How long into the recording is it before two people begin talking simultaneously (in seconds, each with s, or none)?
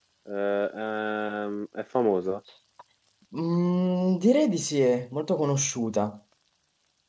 none